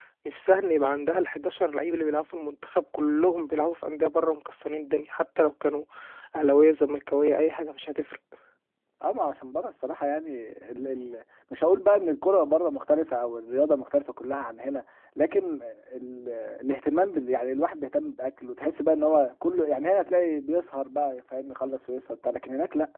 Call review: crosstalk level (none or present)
none